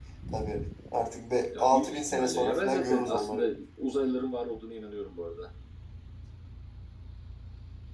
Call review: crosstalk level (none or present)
present